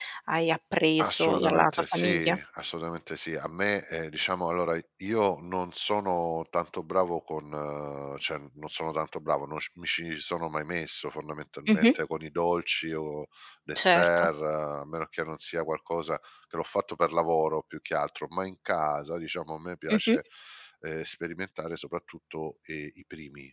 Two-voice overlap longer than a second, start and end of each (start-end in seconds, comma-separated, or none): 1.0-2.4